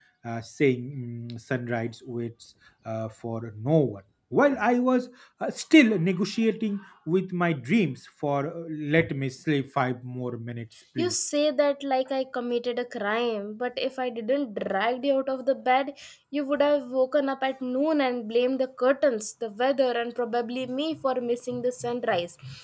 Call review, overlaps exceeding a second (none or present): none